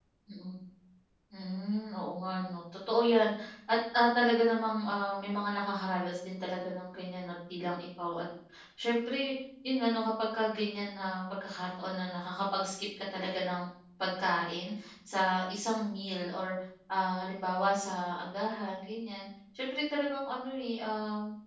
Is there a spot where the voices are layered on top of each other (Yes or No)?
No